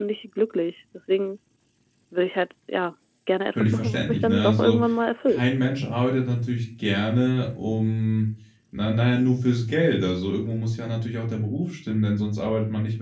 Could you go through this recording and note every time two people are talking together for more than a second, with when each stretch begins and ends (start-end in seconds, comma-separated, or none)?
3.6-4.8